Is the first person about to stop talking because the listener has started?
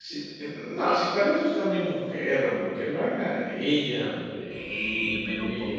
Yes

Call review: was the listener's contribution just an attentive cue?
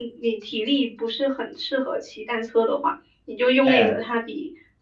Yes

